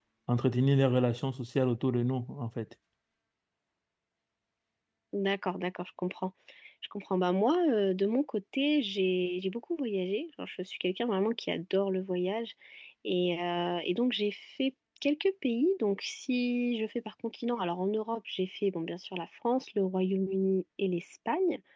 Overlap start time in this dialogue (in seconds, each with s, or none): none